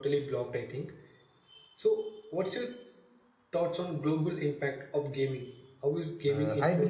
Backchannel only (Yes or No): No